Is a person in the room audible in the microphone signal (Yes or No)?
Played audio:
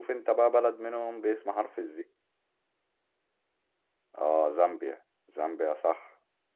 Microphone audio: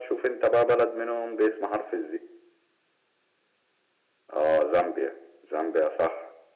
No